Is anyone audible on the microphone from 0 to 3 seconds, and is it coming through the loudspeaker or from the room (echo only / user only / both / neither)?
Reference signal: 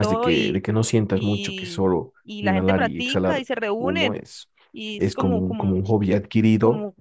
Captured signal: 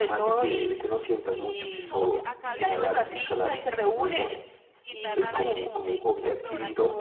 both